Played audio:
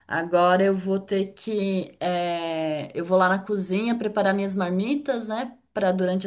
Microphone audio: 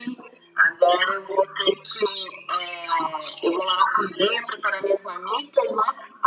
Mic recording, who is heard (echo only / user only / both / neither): echo only